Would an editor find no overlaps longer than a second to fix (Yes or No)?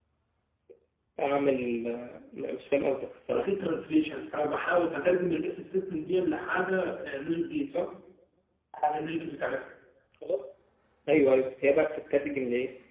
Yes